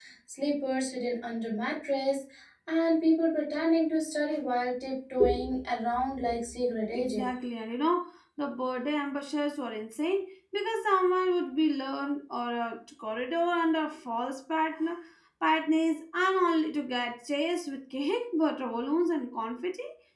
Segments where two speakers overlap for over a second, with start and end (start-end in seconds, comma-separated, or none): none